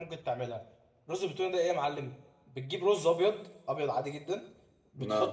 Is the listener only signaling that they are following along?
Yes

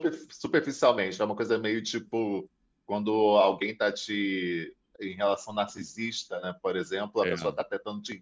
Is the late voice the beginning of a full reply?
No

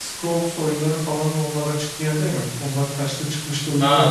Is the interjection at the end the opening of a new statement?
Yes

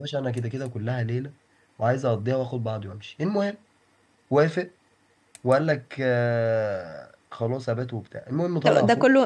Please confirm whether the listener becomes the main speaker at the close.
Yes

